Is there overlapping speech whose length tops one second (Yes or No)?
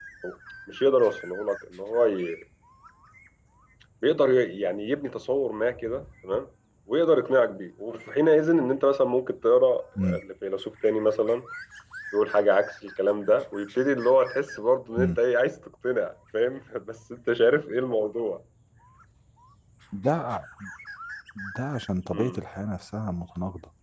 No